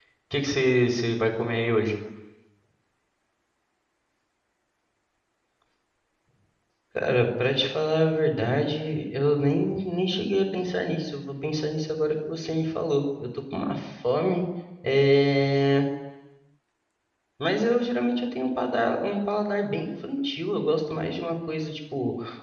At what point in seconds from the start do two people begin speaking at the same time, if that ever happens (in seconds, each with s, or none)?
none